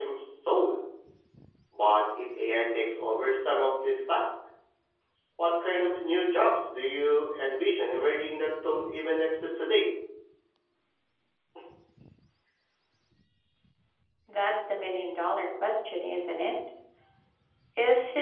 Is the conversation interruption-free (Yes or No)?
Yes